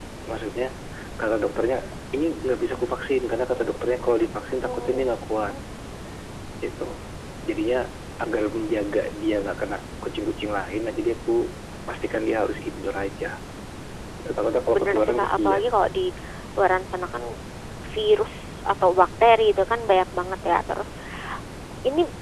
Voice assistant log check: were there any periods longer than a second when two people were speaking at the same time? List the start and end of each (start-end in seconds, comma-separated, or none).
14.4-15.8